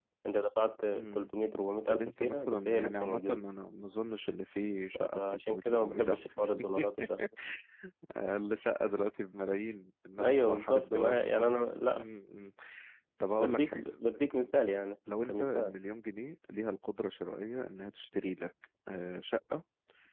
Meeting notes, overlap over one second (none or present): present